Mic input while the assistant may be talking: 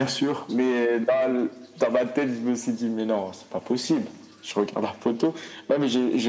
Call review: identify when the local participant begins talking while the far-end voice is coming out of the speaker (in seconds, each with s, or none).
none